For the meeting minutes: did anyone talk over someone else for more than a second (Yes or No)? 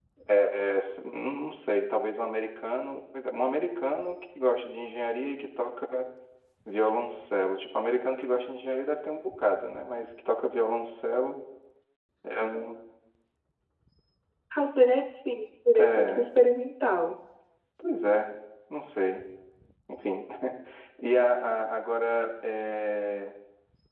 No